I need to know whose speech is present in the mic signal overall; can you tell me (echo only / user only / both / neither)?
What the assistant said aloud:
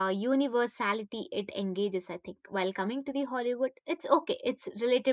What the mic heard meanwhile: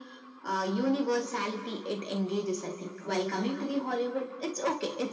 echo only